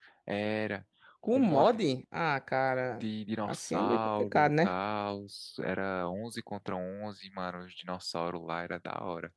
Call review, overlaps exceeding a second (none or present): present